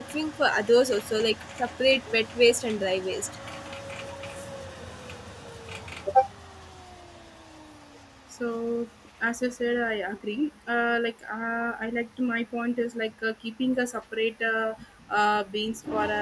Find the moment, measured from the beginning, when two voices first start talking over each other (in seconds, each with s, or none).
none